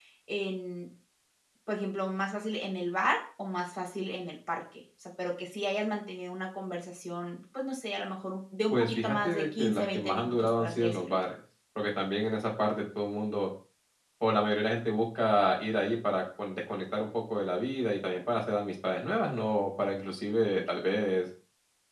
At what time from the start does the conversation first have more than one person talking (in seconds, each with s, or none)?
8.7 s